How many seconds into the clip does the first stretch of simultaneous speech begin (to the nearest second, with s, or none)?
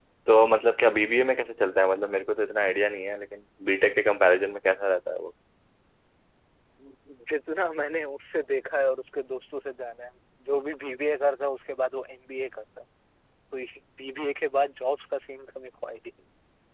none